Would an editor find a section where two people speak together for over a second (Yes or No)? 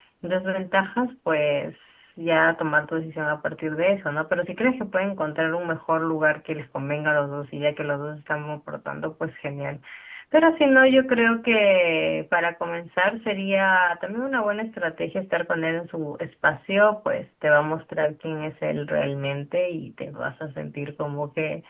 No